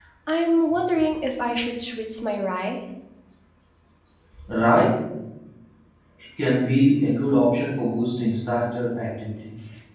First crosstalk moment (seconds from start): none

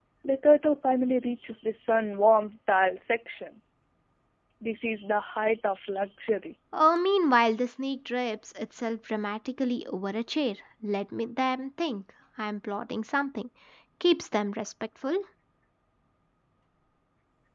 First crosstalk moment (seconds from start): none

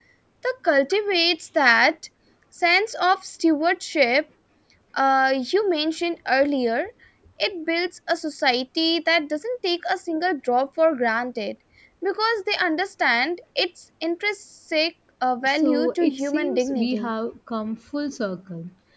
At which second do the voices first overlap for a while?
15.4 s

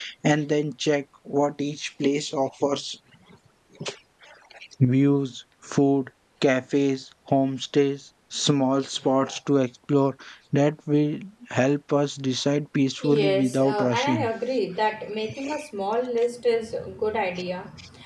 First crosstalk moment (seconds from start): 13.0 s

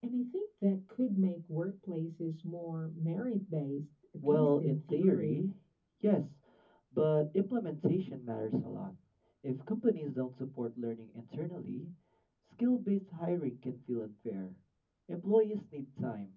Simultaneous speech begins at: 4.2 s

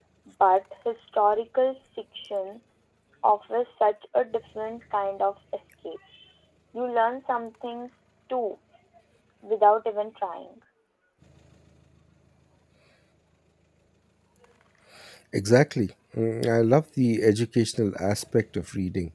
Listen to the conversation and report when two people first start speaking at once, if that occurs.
none

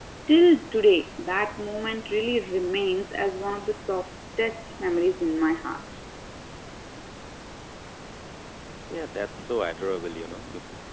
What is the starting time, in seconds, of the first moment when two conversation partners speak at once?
none

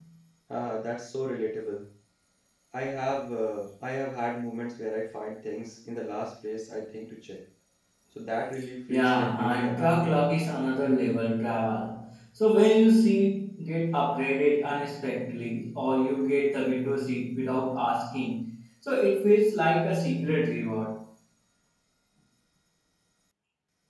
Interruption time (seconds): 8.9 s

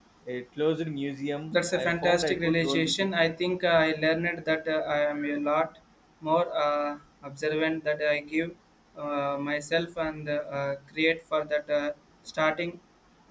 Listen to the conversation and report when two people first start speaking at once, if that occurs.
1.5 s

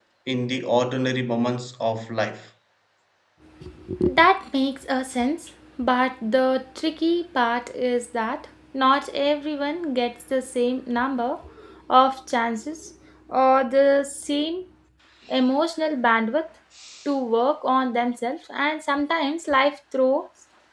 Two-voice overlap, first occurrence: none

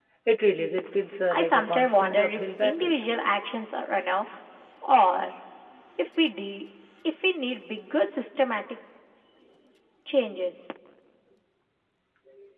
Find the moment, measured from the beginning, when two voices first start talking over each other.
1.3 s

